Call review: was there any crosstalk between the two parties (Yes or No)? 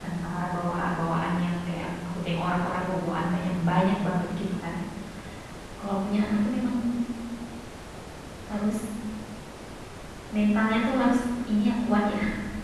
No